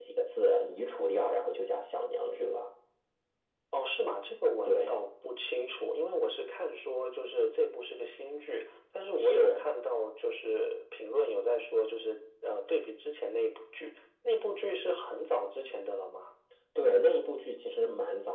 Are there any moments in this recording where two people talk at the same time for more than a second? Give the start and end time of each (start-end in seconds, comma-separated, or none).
none